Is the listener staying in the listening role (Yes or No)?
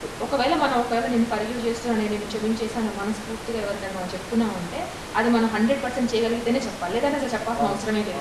No